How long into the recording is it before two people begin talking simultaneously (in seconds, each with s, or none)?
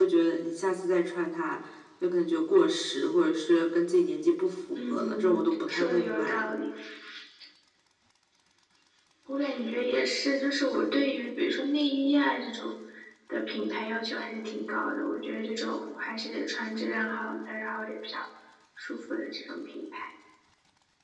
4.7 s